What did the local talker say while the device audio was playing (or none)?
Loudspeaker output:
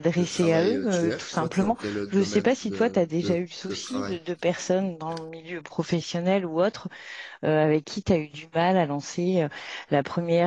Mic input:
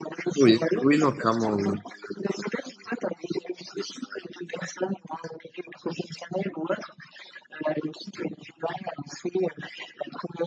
oui, oui, non, clairement. oui.